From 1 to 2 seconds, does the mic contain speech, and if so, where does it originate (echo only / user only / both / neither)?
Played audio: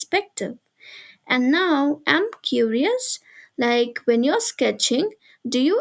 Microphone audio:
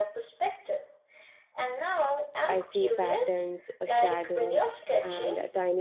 echo only